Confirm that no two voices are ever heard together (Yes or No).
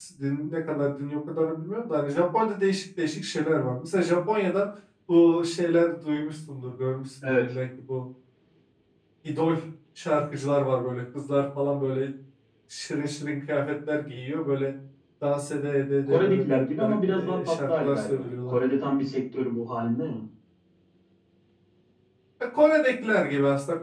No